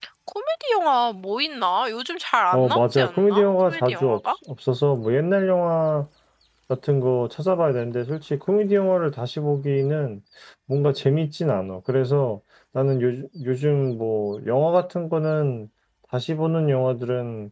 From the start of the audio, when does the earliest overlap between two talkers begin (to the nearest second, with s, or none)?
3 s